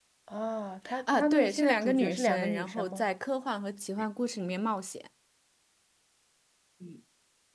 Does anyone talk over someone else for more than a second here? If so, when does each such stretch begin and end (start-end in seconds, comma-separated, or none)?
1.0-3.1